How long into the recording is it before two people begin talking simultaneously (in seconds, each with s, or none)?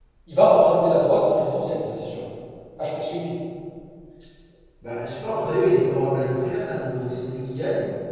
none